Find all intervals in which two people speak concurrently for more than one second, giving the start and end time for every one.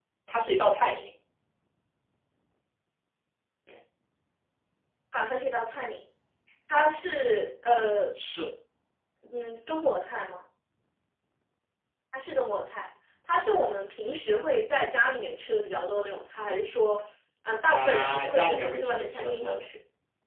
17.7-19.6

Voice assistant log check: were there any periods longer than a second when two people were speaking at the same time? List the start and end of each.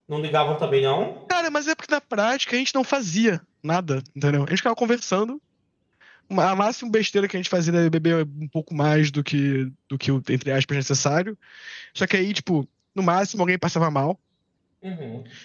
none

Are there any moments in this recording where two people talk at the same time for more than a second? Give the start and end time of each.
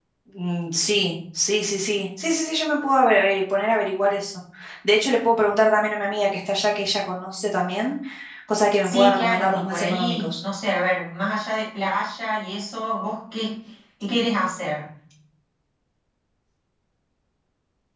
8.8-10.4

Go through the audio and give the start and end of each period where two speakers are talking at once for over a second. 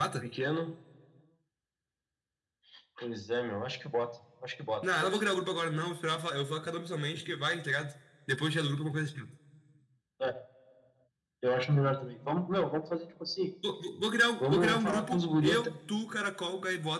14.4-15.7

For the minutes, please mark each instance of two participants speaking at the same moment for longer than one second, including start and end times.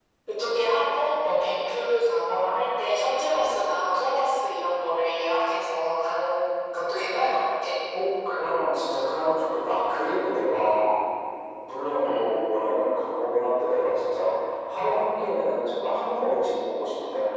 none

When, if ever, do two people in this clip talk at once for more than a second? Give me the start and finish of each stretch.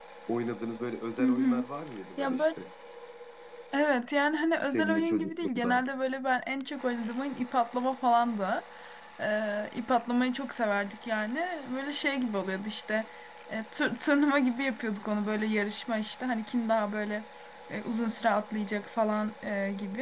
4.6-5.8

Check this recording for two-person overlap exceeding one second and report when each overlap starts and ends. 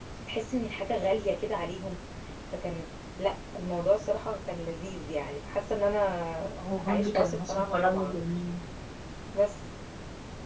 6.9-8.2

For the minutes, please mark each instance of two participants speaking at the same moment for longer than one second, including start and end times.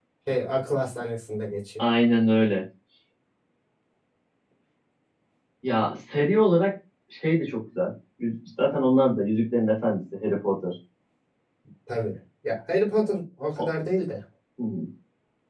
none

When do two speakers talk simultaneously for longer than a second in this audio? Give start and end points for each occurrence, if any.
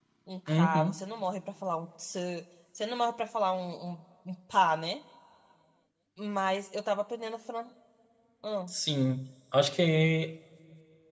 none

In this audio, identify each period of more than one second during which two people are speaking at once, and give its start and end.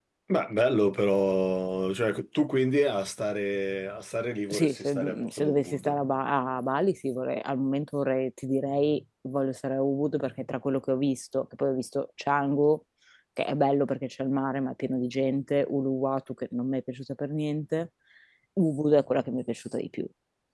4.5-6.0

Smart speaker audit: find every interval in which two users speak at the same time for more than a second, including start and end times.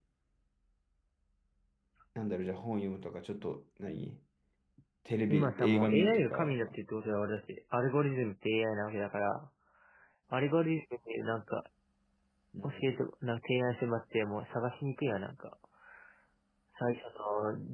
5.3-6.6

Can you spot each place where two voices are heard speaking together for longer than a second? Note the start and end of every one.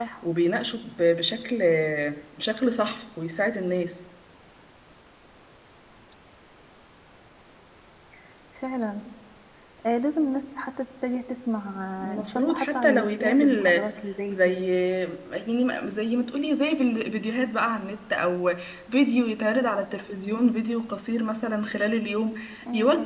12.2-13.9

